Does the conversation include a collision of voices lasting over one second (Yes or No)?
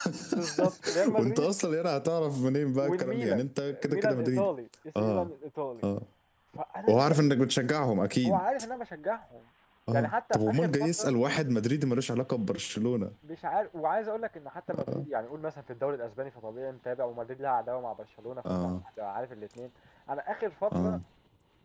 Yes